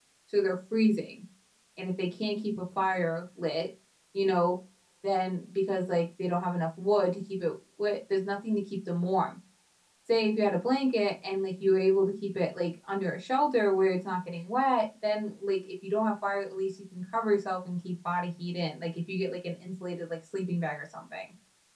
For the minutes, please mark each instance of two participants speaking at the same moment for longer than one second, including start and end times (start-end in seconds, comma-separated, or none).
none